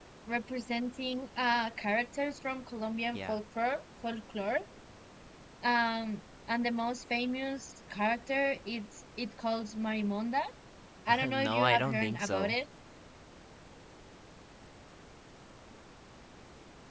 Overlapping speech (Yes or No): Yes